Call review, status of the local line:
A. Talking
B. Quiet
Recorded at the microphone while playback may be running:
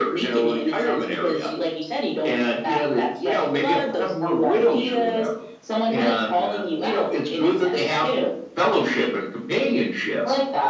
B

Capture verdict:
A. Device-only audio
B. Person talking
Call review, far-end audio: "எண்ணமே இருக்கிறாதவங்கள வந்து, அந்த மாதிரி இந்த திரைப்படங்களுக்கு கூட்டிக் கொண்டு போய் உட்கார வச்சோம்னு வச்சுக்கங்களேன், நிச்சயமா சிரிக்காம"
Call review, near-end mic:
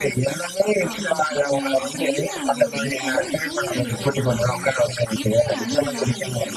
B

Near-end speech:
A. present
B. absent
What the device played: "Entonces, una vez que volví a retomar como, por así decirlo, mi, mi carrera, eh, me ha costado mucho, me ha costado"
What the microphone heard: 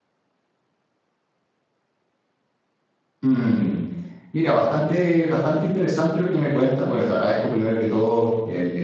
A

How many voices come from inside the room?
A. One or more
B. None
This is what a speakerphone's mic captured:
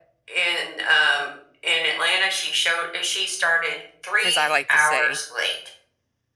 A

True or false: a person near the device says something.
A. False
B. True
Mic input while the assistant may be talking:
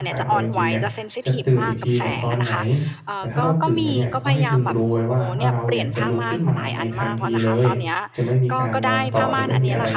B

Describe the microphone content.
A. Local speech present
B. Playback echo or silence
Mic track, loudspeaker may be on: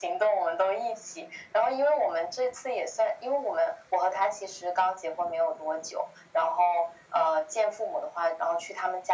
B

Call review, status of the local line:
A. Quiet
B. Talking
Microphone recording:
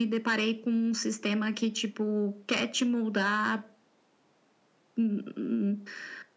A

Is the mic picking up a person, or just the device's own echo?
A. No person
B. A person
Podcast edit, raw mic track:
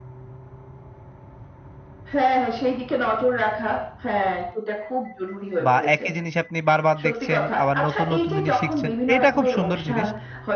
B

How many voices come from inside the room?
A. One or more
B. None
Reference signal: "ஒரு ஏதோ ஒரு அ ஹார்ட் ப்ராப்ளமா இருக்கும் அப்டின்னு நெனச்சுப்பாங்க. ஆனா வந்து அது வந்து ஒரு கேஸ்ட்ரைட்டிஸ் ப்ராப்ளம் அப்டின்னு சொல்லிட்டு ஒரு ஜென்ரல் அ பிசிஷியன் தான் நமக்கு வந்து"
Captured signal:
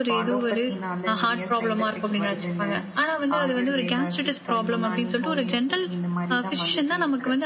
A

